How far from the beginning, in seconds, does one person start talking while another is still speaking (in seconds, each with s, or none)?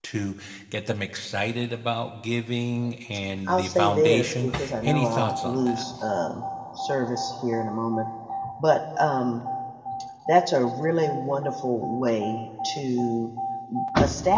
3.5 s